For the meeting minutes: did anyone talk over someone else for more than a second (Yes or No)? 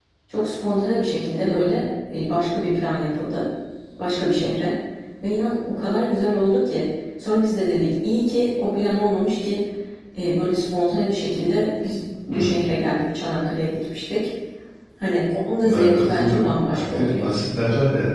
Yes